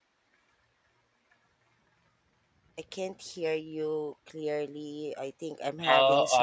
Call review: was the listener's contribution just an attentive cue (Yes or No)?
No